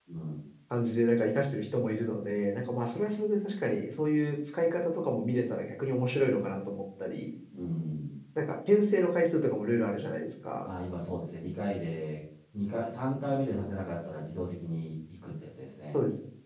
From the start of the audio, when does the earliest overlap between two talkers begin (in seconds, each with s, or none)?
none